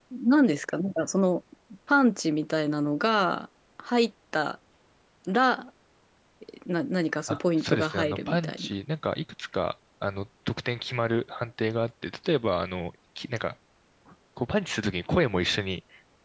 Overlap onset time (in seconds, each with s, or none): 7.3 s